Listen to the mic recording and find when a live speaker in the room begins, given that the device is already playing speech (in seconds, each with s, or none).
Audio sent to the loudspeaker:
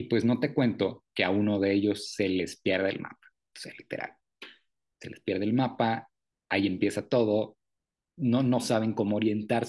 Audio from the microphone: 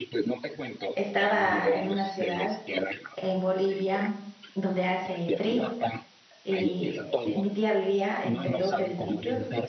0.9 s